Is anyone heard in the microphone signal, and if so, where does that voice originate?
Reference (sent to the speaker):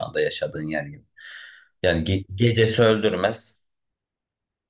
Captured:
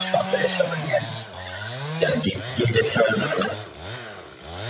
echo only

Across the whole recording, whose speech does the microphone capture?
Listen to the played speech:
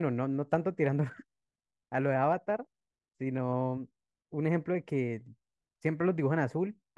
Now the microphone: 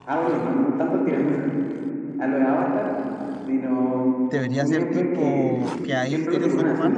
both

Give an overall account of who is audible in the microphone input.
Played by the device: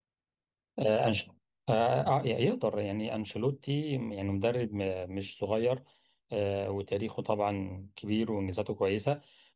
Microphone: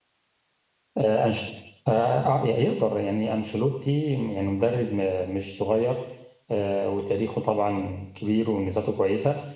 echo only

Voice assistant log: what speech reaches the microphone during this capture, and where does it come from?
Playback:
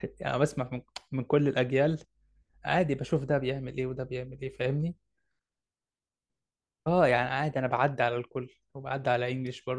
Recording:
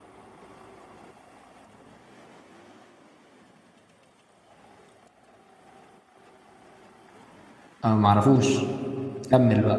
user only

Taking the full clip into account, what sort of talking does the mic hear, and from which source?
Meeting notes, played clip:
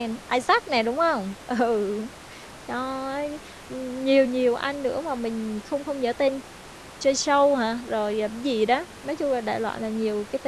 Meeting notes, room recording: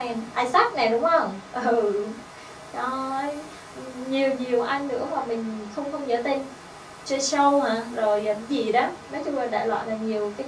echo only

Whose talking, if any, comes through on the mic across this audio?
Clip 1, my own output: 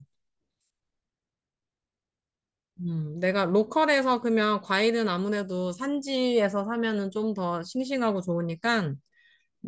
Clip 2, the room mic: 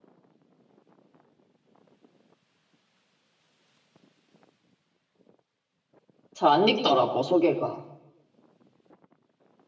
user only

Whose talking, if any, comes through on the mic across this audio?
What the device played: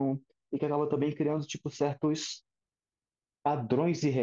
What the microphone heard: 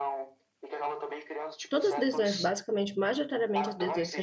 both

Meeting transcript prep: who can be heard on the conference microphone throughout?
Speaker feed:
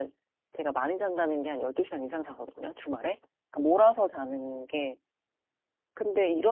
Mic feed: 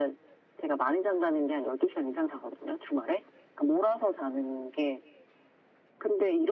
echo only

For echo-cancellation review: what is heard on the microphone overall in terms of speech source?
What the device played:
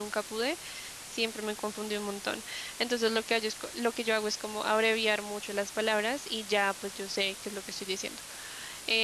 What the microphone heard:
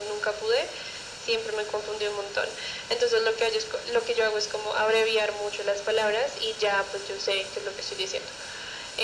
echo only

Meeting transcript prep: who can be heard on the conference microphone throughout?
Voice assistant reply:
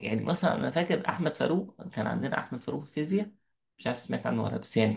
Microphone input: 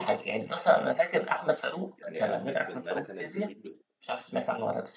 both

